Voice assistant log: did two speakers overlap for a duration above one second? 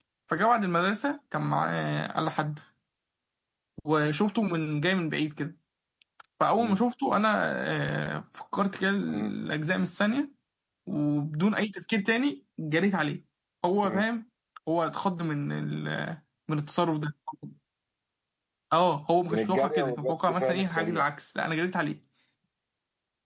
Yes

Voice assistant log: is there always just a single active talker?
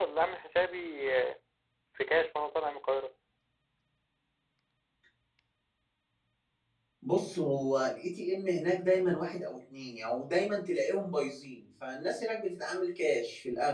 Yes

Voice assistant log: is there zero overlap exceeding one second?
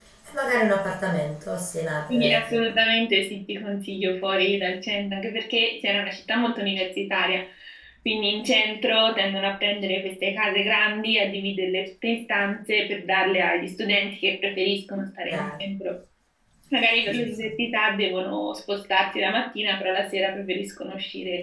Yes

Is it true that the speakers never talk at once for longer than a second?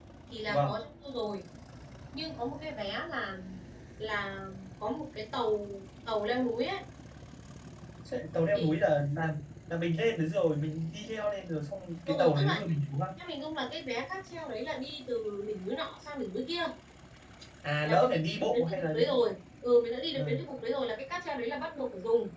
No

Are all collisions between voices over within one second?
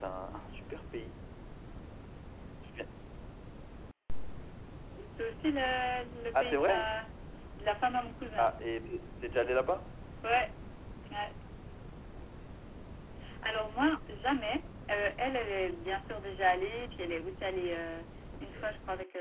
Yes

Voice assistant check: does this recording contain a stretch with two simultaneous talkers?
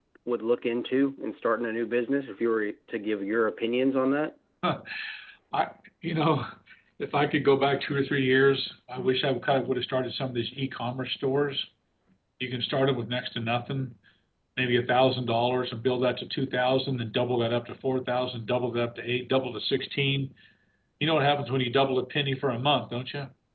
No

